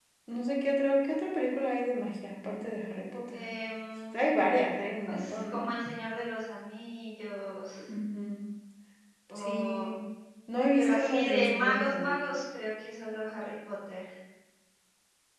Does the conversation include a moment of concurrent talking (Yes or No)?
Yes